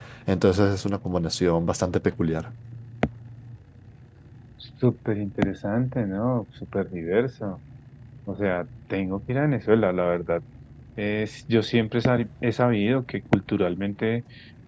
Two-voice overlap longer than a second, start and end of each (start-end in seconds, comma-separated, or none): none